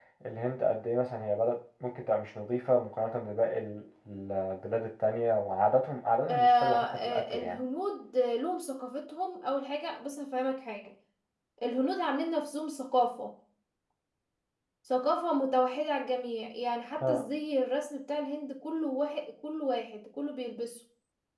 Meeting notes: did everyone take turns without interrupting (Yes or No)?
No